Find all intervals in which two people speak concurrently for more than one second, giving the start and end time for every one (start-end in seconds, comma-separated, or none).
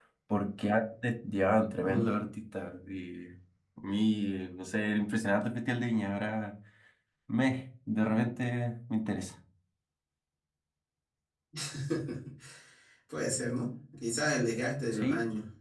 none